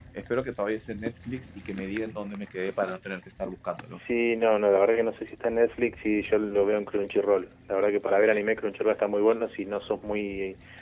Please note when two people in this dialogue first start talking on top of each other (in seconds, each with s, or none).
none